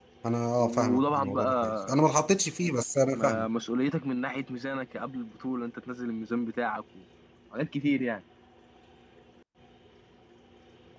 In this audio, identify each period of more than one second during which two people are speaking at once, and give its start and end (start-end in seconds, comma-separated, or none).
0.6-2.0